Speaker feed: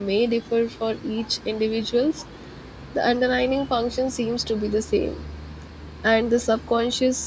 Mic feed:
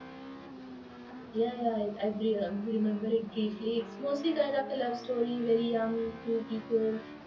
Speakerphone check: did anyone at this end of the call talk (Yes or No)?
Yes